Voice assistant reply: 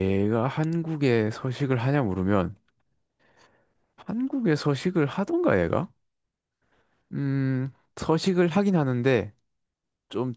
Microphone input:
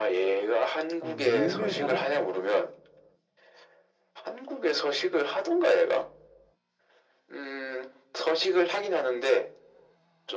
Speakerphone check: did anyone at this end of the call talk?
Yes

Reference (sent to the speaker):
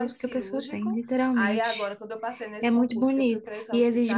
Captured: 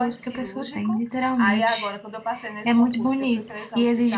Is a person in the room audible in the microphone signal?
No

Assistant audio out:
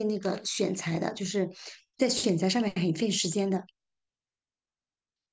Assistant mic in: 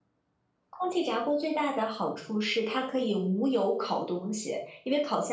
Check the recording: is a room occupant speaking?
Yes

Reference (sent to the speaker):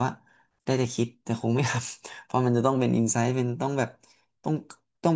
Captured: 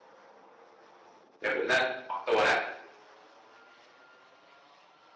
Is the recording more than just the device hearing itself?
Yes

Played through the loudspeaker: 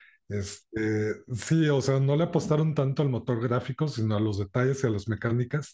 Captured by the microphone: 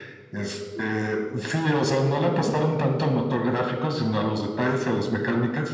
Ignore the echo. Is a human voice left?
No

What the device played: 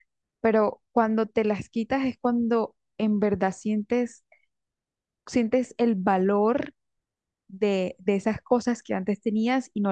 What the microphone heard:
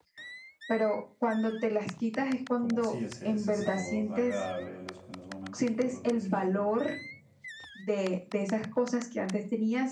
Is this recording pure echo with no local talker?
No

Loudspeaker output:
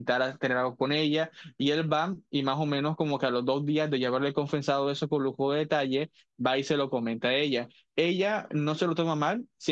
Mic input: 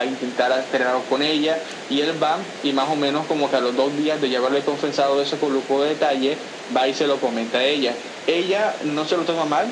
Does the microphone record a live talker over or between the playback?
No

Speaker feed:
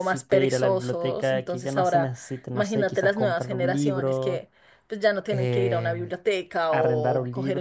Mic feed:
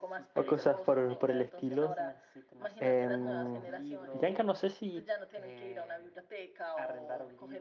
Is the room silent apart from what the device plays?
No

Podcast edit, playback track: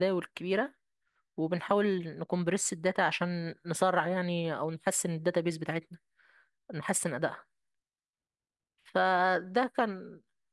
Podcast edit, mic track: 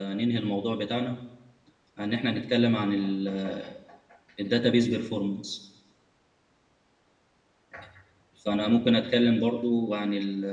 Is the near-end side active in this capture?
Yes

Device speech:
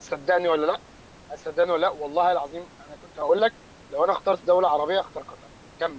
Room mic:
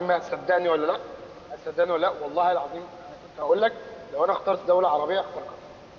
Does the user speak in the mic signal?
No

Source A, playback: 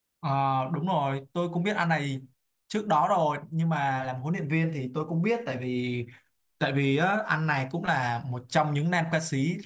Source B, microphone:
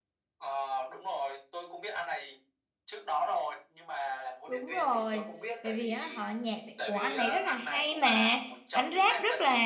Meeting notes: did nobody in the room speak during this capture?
No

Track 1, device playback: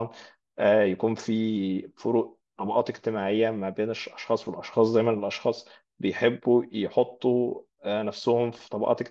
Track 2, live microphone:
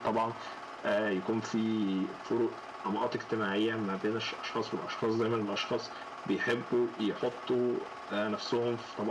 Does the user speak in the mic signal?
No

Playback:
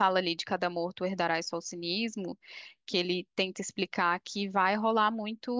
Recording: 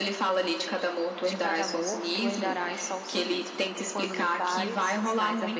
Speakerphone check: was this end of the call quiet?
No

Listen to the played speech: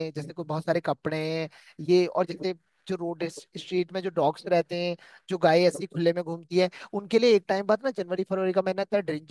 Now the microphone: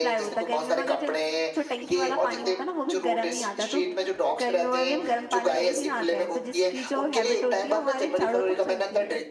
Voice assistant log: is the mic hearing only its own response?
No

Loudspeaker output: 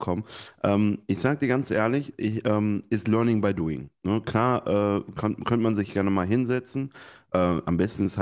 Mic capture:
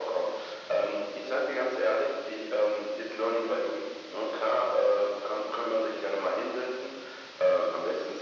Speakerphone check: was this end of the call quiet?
Yes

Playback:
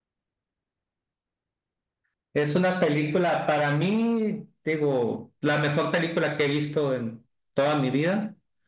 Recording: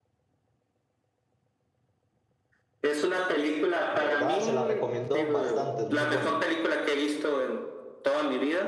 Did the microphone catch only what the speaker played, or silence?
No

